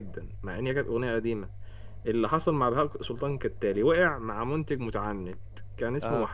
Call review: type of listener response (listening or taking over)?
listening